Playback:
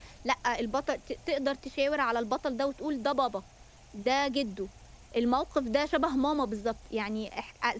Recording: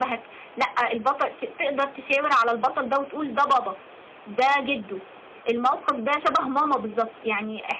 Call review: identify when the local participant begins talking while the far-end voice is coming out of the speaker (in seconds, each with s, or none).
none